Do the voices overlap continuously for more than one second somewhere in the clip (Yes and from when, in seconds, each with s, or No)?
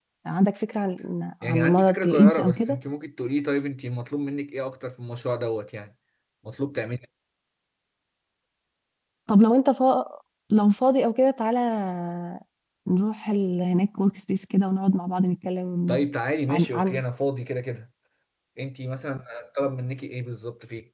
Yes, from 1.4 s